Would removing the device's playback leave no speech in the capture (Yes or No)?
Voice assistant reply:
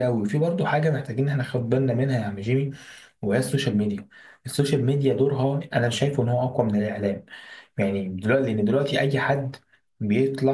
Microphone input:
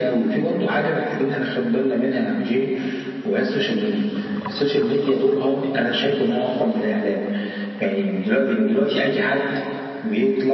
Yes